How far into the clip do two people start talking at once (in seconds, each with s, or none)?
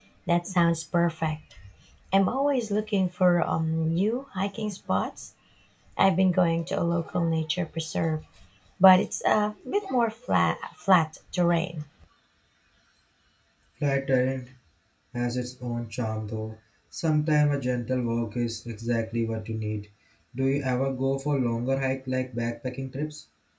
none